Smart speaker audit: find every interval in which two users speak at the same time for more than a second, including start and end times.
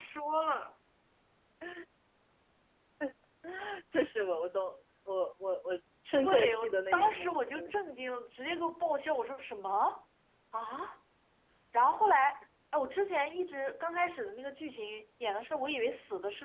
6.2-7.7

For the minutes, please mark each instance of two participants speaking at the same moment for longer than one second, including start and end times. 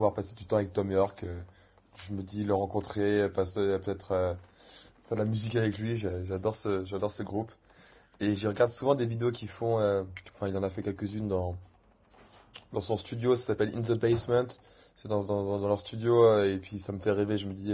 none

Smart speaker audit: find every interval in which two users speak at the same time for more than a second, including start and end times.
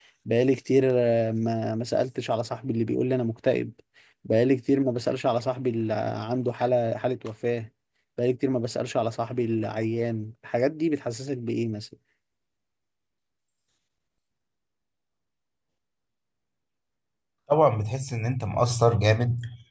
none

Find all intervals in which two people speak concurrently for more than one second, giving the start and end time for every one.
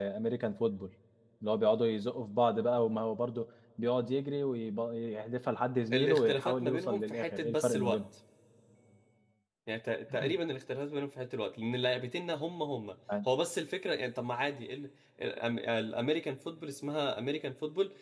5.9-8.0

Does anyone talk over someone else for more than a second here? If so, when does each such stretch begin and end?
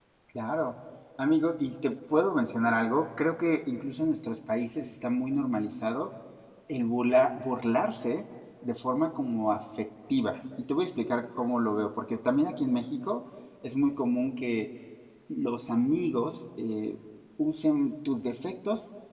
none

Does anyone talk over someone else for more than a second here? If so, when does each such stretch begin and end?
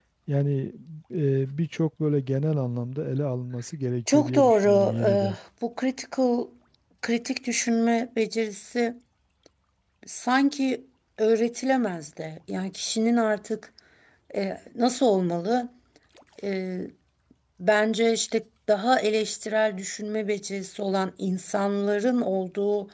4.1-5.3

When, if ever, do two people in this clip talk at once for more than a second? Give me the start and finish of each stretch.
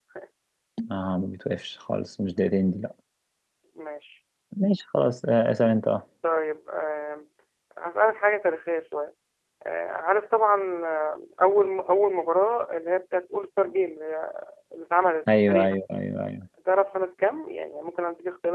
none

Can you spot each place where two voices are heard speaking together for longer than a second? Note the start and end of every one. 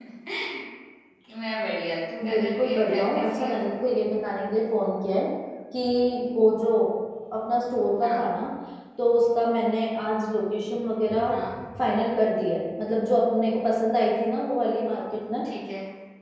2.3-3.7

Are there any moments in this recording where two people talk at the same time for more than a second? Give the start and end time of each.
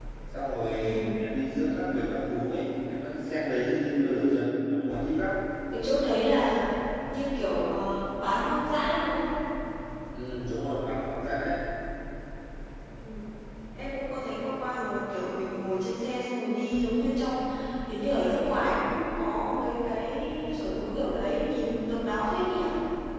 none

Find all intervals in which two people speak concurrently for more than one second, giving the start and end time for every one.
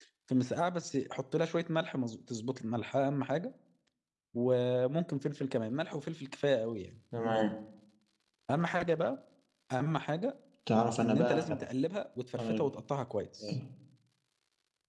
none

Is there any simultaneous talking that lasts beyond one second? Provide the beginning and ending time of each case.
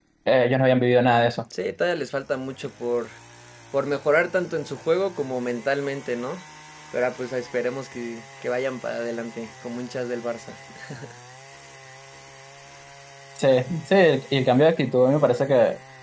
none

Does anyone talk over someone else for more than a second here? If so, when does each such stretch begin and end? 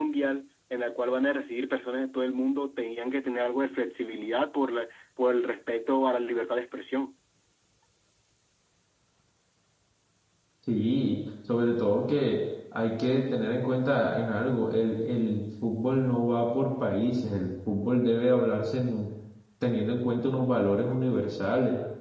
none

